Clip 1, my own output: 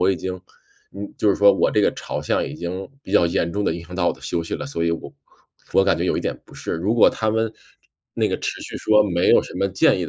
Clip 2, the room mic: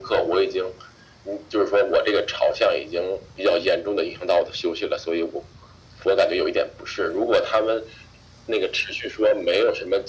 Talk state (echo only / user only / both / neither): echo only